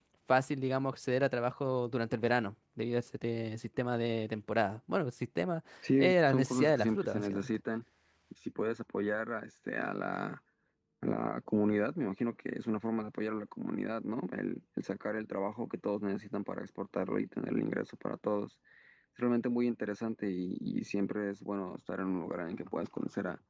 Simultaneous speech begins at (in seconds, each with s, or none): 5.8 s